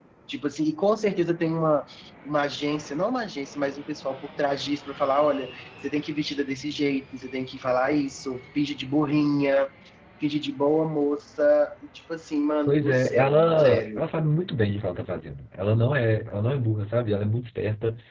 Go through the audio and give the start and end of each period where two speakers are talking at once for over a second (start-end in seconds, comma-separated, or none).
12.7-14.0